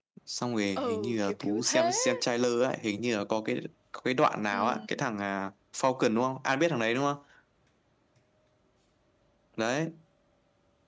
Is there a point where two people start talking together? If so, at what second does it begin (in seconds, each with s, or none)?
0.8 s